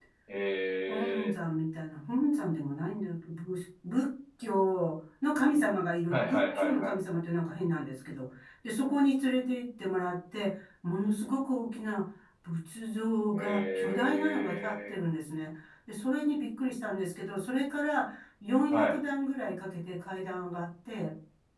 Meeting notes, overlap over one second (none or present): present